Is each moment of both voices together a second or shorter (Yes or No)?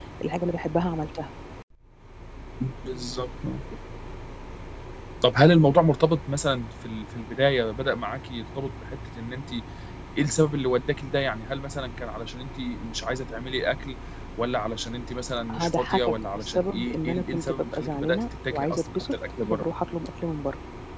No